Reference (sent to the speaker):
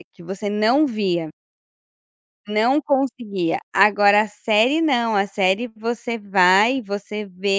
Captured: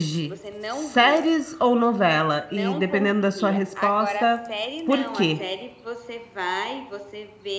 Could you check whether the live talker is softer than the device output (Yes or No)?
No